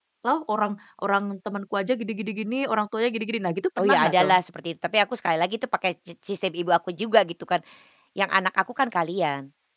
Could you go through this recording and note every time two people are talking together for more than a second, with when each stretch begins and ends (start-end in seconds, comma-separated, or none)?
none